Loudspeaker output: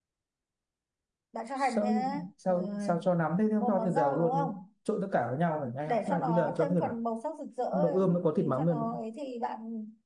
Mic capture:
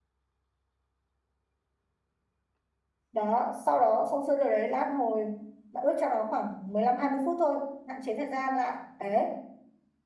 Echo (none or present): none